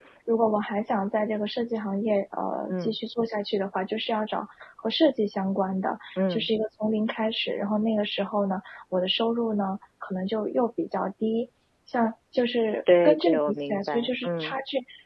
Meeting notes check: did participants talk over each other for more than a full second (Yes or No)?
Yes